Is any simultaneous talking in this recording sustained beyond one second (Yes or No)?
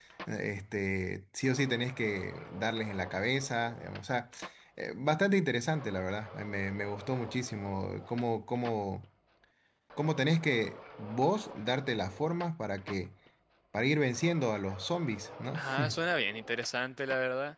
No